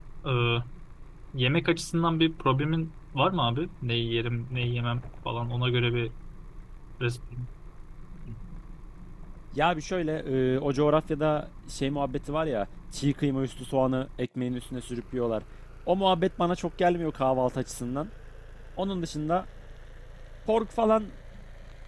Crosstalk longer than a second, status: none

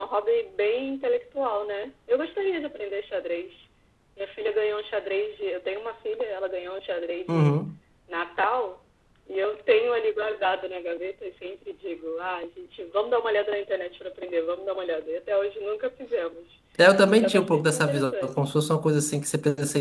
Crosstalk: present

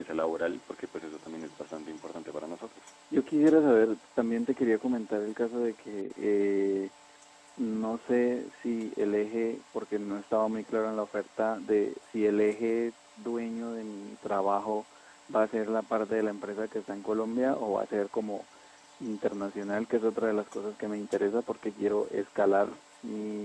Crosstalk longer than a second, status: none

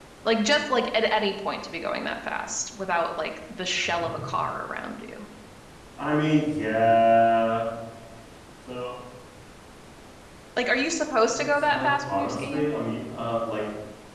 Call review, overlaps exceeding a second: present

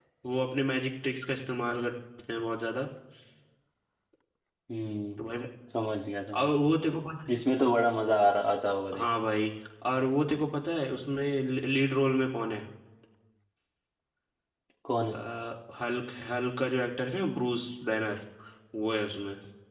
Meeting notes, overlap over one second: none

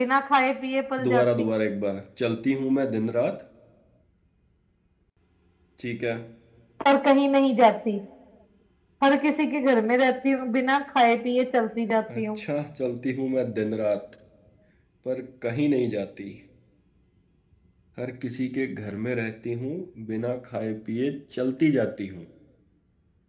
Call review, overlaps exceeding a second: none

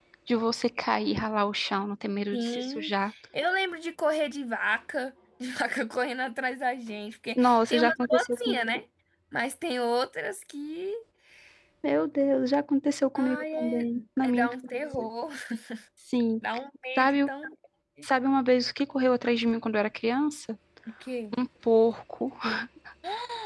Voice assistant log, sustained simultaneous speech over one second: present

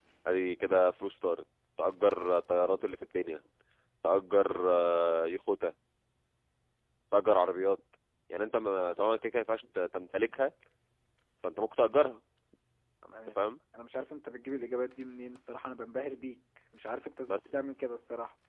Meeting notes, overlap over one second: none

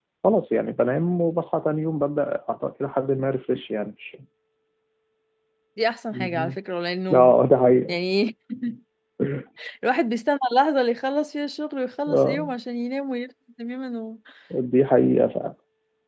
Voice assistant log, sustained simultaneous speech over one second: none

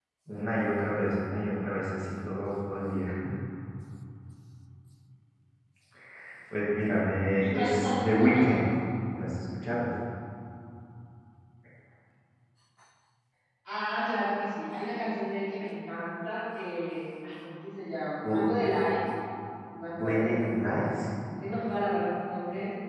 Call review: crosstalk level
present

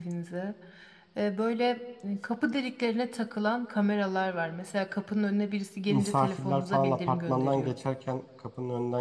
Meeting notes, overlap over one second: present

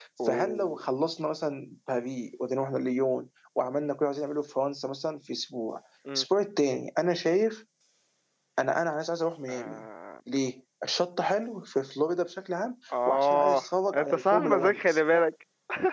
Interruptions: present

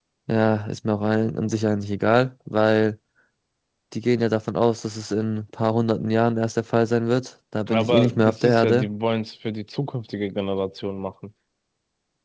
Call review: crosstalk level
present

